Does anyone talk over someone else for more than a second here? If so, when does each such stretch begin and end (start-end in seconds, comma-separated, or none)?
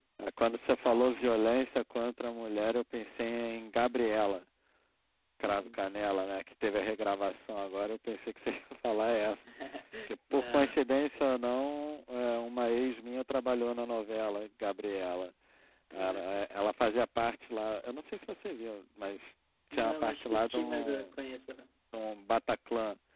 19.7-21.1